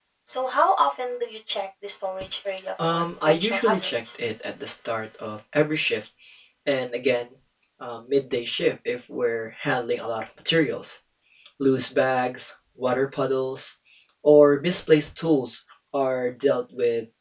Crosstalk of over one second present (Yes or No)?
Yes